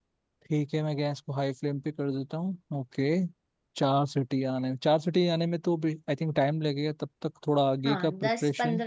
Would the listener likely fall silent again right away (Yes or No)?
No